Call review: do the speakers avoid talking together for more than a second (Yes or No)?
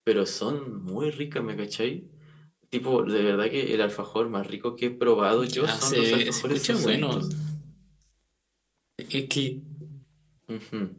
No